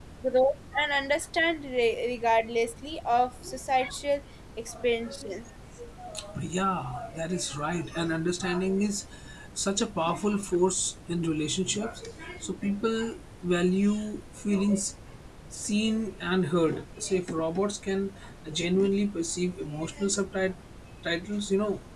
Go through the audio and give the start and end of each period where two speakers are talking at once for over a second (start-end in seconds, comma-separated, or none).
none